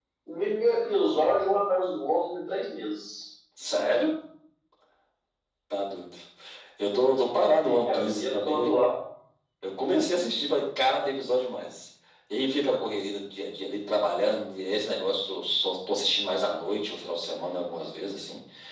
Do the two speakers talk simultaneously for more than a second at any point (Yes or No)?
Yes